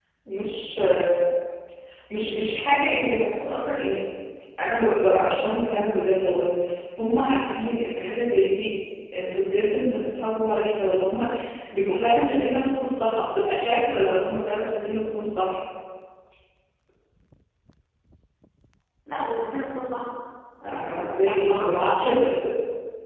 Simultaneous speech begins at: 21 s

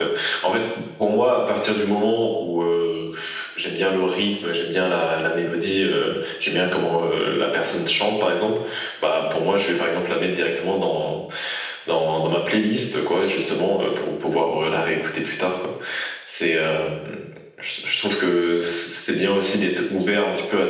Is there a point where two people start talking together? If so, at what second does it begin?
none

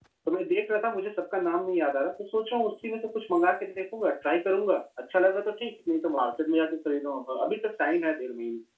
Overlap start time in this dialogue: none

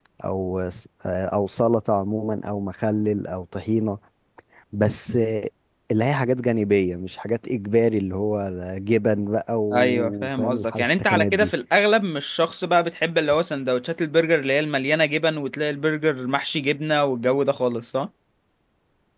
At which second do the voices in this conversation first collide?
10 s

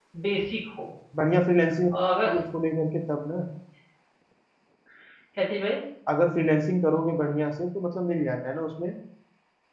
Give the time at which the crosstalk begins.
none

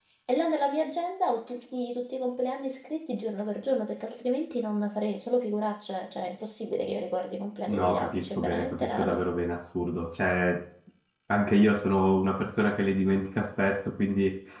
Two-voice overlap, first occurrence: 8 s

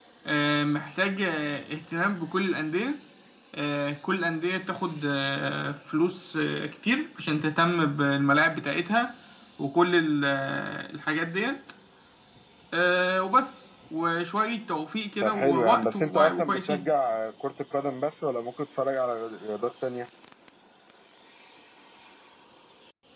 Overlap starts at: 15 s

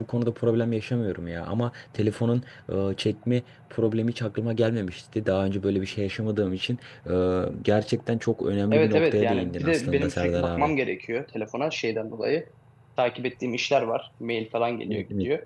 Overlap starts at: 9 s

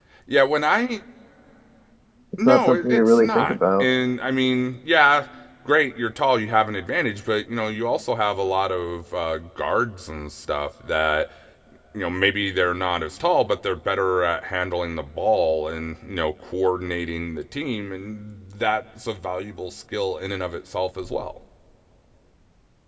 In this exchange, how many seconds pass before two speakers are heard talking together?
2 s

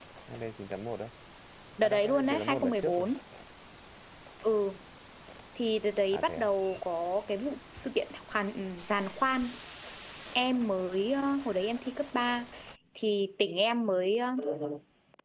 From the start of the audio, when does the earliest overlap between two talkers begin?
2 s

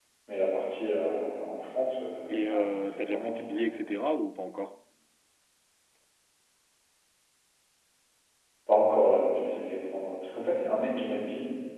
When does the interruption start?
2 s

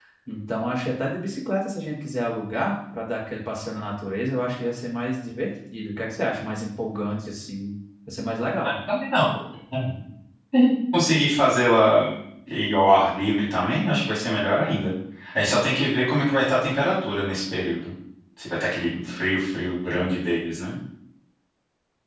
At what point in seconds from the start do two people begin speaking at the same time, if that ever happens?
none

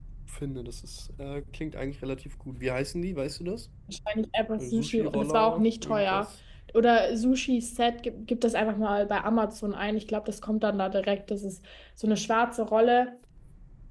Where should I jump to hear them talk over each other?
5 s

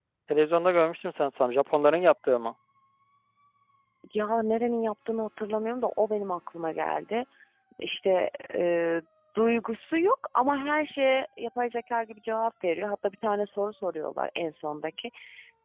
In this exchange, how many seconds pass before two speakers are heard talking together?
none

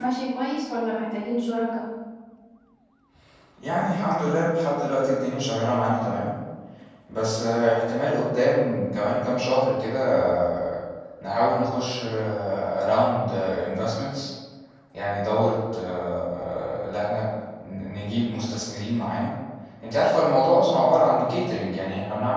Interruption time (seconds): none

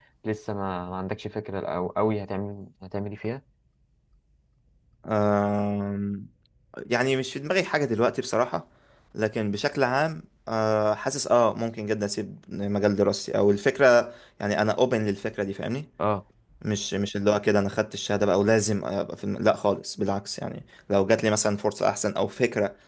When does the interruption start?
none

